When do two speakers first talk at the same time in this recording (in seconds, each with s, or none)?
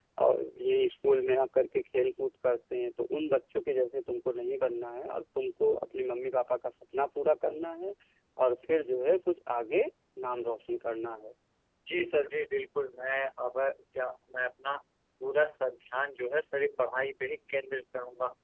none